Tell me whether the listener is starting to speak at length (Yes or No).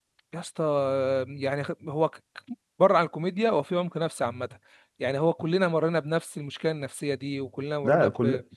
Yes